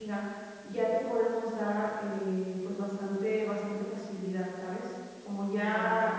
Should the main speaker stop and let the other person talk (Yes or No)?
No